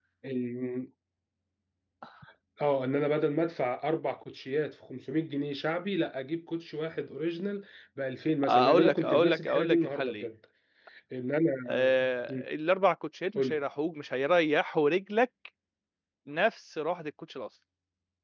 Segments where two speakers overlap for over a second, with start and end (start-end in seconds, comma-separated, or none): 8.4-10.3